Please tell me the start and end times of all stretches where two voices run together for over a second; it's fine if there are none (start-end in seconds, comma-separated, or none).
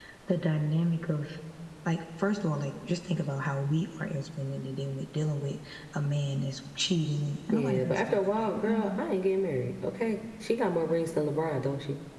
7.5-9.0